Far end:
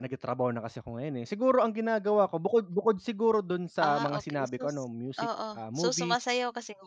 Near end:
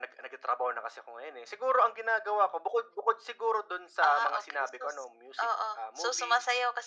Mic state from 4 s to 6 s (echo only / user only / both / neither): echo only